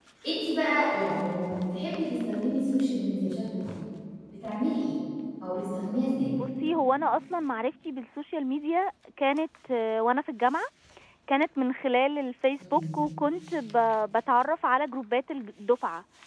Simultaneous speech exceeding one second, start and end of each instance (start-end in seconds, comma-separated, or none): none